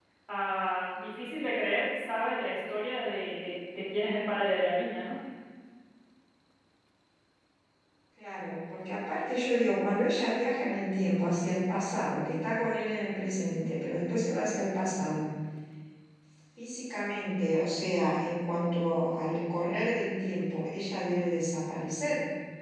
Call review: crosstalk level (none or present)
none